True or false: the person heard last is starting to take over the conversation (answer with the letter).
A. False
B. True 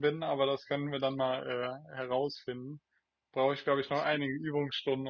A